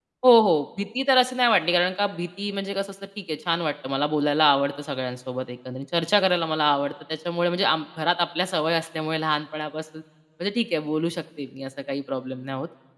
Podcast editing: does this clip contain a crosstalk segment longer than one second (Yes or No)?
No